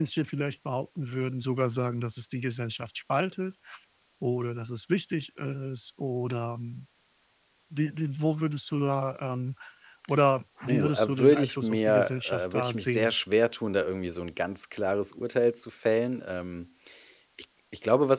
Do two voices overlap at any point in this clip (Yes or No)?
Yes